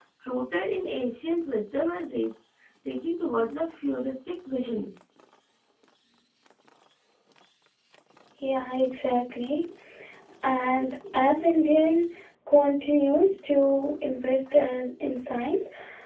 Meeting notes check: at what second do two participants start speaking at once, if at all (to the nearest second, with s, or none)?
none